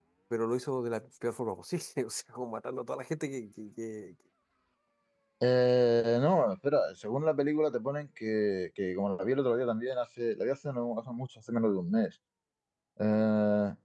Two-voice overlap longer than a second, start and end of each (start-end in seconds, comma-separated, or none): none